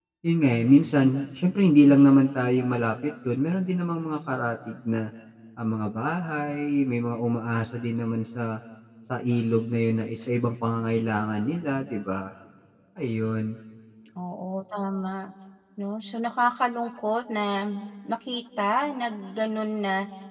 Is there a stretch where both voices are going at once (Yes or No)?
No